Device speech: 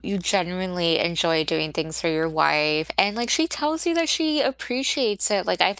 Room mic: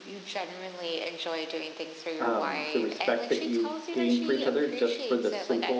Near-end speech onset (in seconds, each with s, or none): 2.2 s